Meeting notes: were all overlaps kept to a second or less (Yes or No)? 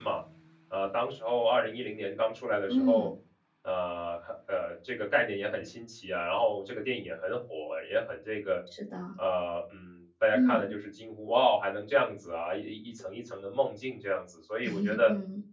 Yes